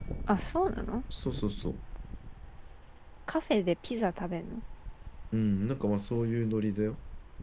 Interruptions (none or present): none